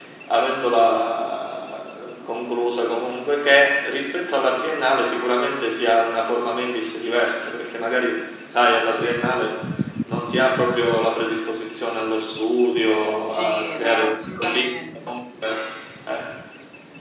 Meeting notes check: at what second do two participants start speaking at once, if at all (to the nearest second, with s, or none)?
13 s